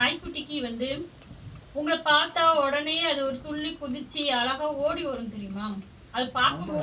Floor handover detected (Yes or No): Yes